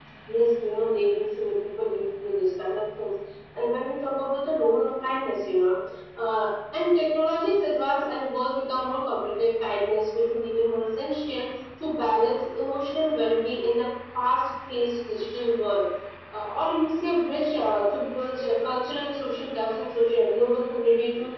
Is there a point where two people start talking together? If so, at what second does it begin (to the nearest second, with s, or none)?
none